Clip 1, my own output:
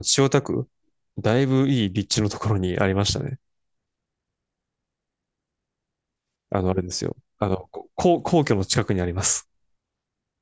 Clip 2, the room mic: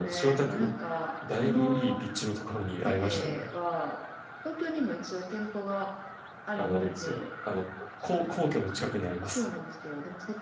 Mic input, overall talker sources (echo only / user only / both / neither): both